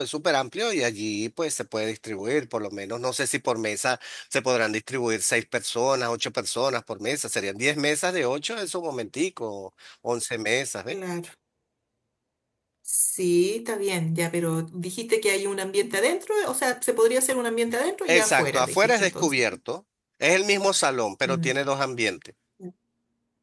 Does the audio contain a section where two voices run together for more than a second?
Yes, from 18.1 s

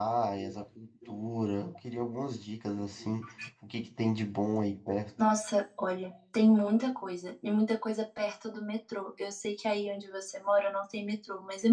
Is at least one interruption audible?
No

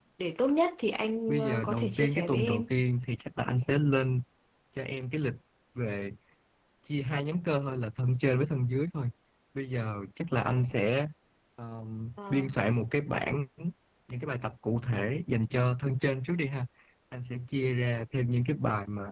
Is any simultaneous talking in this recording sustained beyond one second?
Yes, from 1.3 s

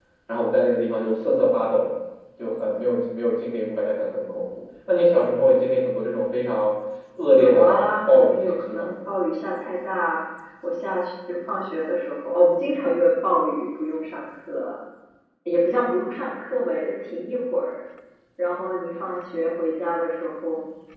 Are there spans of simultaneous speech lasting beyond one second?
Yes, from 7.3 s

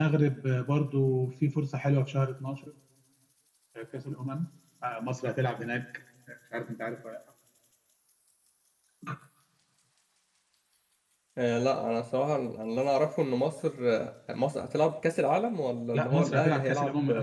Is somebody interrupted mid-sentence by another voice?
Yes, from 15.9 s

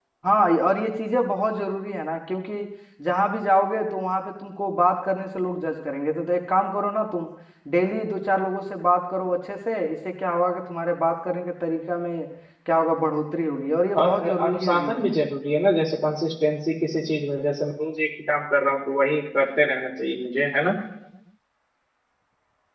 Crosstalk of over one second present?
Yes, from 13.9 s

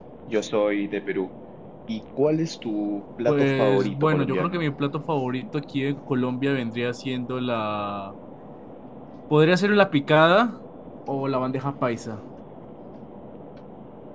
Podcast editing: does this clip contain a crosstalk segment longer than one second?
Yes, from 3.3 s

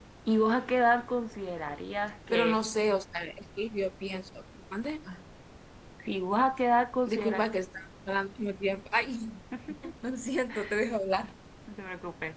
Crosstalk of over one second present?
No

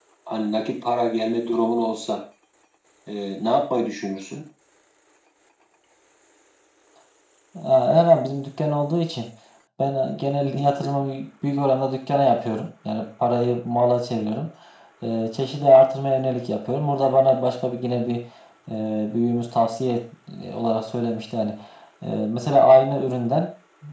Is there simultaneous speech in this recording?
No

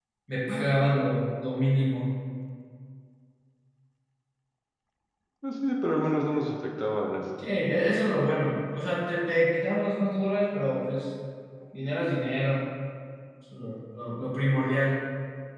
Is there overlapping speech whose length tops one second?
No

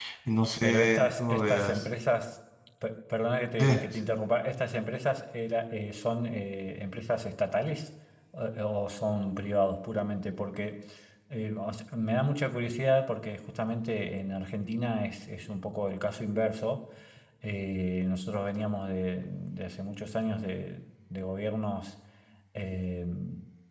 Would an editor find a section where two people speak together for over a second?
Yes, from 0.6 s

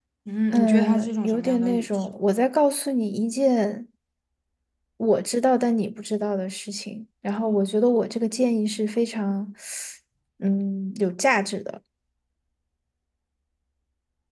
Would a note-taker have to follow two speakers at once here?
Yes, from 0.5 s

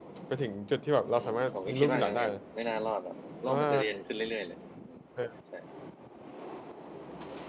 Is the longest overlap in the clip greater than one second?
Yes, from 1.1 s

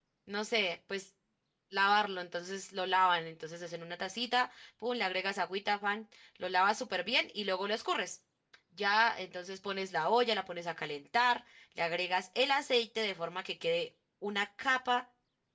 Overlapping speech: No

